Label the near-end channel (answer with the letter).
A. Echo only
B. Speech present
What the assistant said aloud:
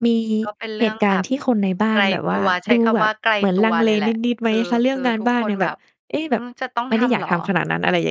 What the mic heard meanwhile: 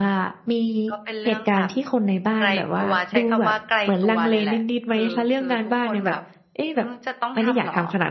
A